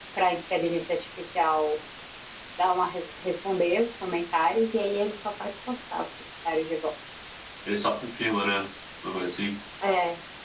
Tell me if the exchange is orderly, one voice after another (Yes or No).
Yes